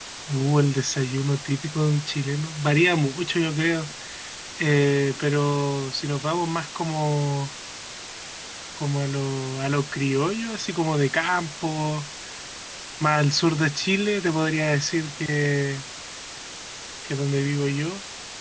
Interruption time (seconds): none

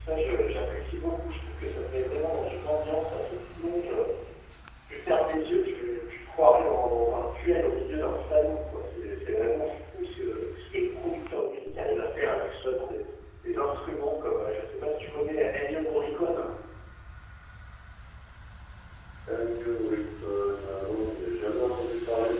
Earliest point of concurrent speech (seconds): none

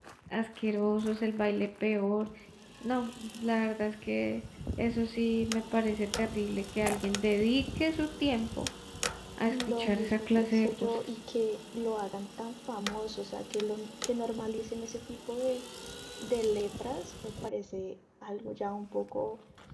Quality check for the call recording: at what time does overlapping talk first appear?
9.5 s

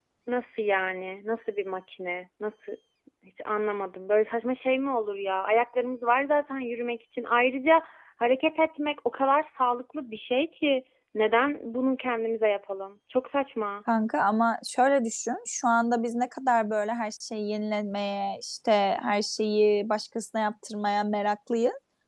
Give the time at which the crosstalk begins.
none

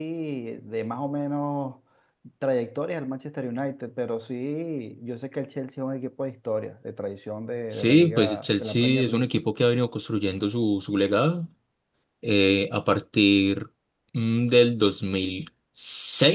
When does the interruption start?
7.7 s

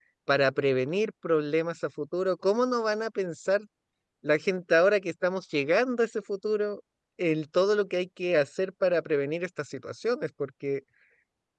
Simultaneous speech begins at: none

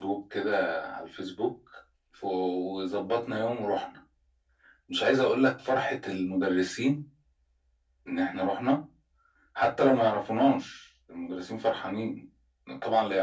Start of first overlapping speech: none

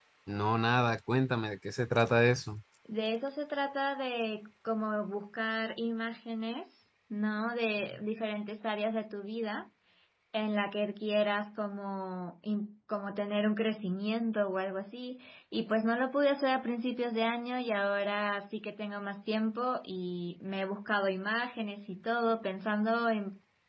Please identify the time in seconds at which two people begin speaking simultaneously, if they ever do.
none

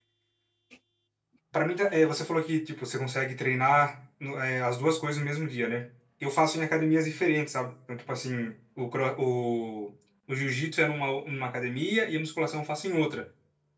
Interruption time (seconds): none

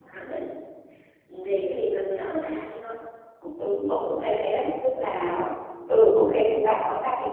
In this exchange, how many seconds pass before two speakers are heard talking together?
none

